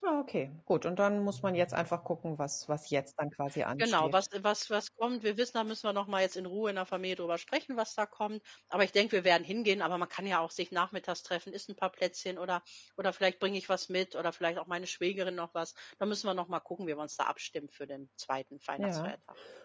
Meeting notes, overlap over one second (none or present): none